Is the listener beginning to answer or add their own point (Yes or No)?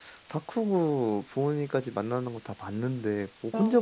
No